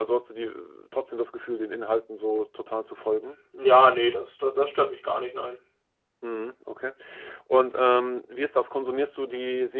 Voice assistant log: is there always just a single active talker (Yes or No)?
Yes